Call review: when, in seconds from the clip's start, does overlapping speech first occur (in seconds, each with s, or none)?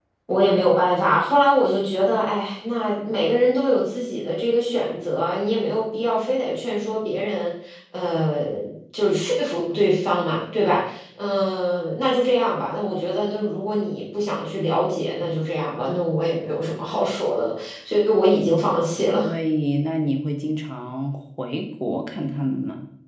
none